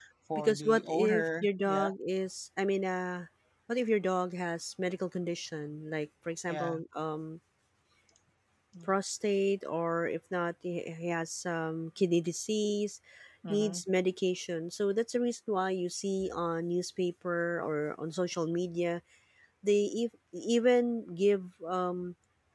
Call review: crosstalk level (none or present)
present